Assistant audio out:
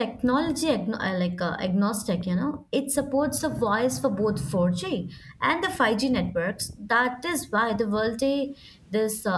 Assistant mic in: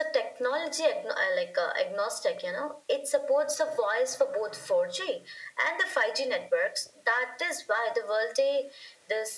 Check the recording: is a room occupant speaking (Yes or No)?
No